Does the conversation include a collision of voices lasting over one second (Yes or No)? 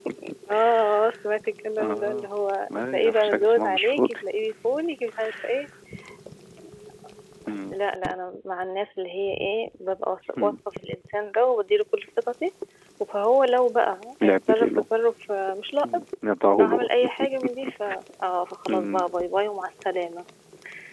Yes